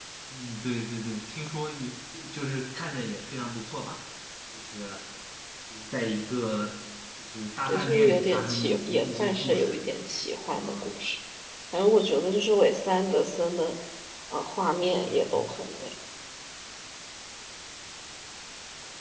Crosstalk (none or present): present